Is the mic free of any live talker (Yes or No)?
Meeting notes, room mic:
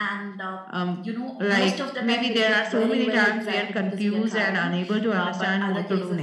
Yes